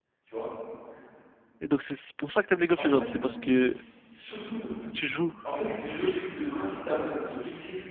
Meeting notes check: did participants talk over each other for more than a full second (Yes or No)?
No